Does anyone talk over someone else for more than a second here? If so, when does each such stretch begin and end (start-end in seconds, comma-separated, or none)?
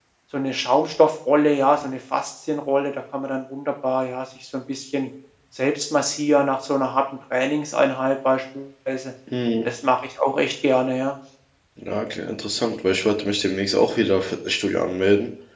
none